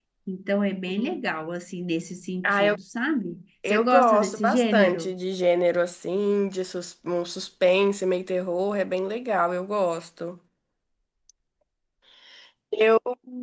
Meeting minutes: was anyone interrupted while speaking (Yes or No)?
Yes